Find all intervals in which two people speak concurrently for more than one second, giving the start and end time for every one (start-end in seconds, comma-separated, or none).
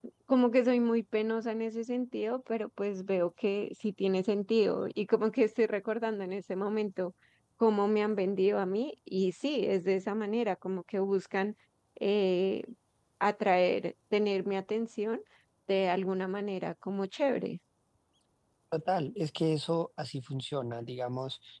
none